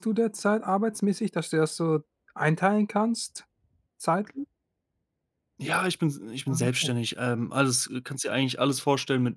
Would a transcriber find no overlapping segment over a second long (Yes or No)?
Yes